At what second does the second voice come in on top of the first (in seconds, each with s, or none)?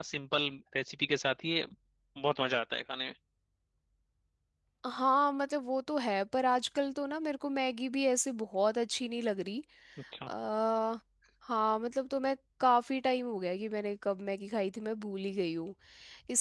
none